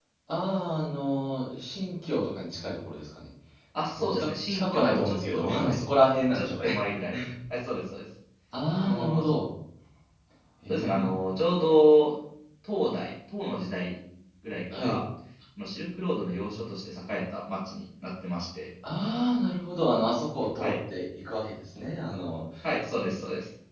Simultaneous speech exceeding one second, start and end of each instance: 4.1-5.8

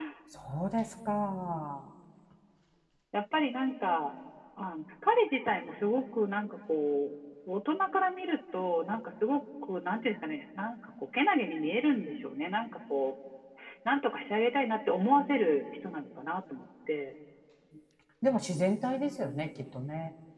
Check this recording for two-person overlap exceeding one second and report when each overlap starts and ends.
none

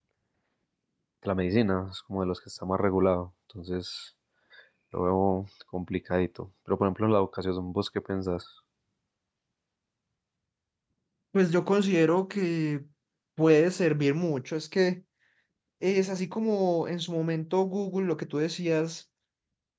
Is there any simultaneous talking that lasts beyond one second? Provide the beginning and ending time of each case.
none

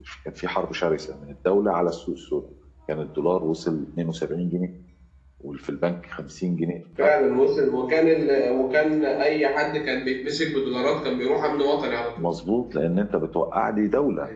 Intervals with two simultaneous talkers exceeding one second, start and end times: none

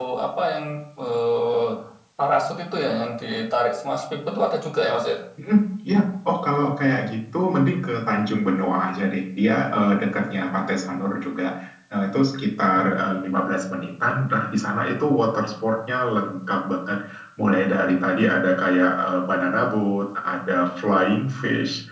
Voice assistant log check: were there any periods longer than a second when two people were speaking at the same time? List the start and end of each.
none

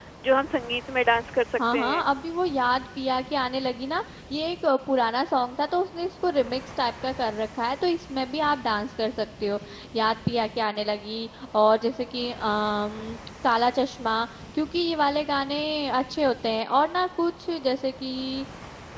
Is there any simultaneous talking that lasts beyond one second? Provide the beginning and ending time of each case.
none

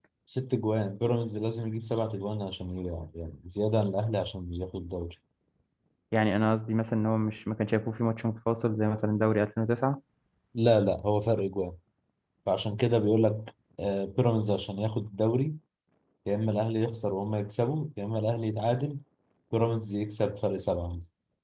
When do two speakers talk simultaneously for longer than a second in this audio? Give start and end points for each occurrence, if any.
none

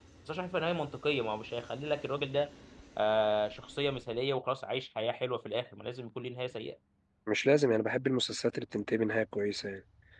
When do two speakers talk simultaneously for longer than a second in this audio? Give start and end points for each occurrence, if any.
none

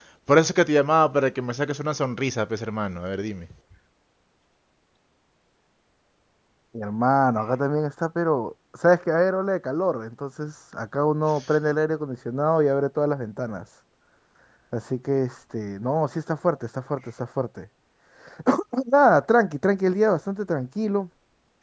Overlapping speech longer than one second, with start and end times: none

